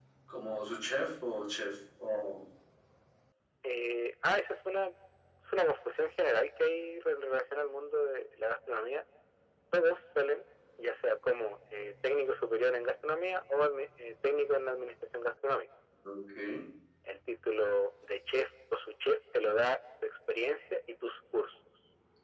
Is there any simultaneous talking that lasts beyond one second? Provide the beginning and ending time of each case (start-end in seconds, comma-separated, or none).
none